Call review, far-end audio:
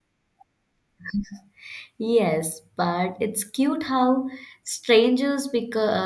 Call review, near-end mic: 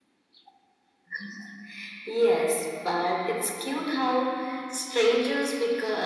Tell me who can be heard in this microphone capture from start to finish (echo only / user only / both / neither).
echo only